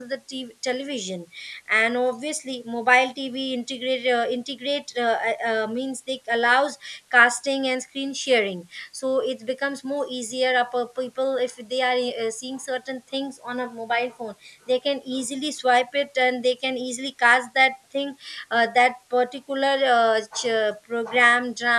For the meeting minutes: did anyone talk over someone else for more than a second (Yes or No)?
No